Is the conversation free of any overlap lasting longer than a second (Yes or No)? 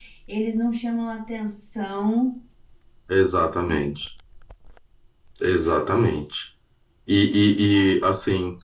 Yes